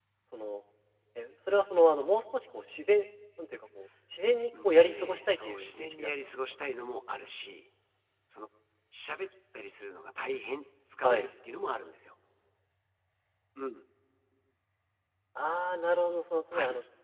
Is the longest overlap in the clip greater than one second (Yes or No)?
Yes